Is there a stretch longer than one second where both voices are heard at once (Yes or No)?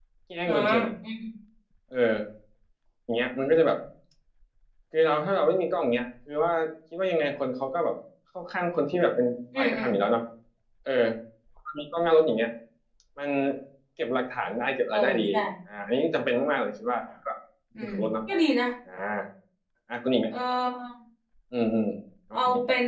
No